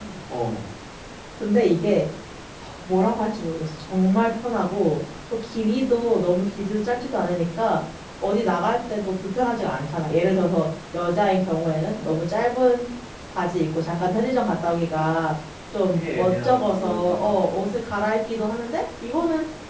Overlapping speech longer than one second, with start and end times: 15.9-17.9

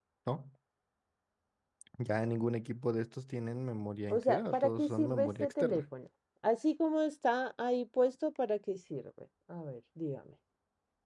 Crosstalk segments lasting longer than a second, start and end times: 4.1-5.8

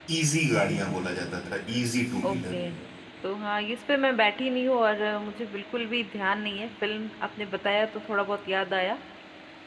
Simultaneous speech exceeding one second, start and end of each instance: none

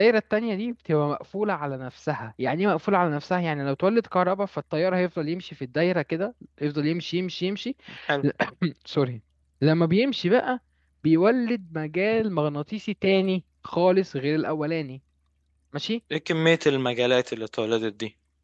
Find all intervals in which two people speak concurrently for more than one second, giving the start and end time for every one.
none

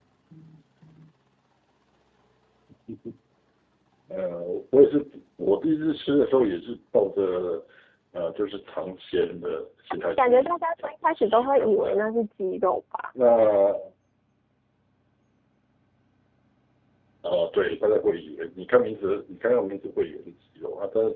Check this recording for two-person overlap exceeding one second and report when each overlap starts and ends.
10.2-12.0

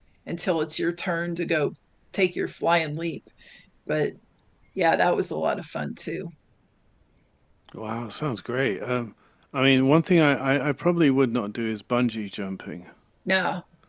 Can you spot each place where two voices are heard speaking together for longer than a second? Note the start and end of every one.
none

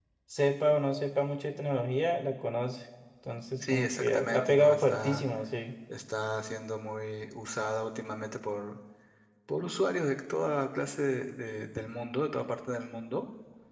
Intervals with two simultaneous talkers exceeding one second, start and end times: 3.6-5.2

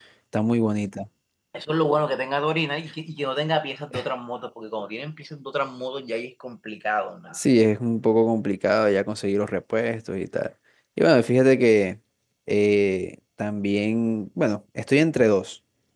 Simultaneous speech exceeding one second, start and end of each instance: none

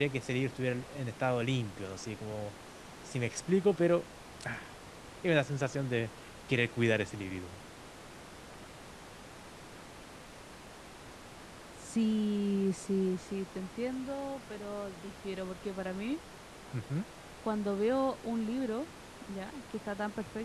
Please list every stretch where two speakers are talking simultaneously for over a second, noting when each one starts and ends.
none

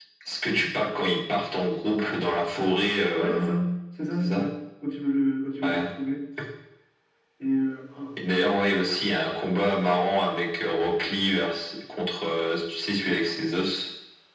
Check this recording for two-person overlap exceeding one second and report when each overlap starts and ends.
none

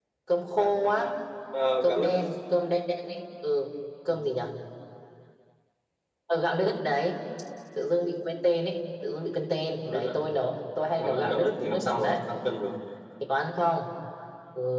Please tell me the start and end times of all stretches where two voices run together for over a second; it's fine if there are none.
11.0-12.2

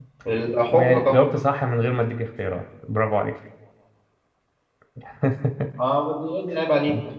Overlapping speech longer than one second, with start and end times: none

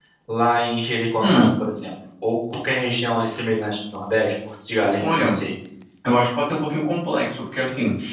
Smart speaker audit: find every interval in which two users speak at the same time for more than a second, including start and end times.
none

